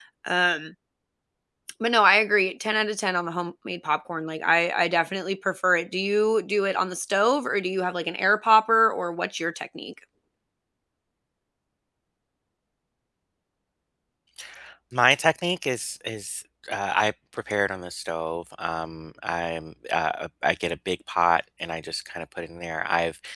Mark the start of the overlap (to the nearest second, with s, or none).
none